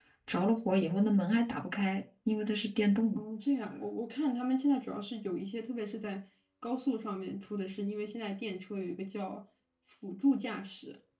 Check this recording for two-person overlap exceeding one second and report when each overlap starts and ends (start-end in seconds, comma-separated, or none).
none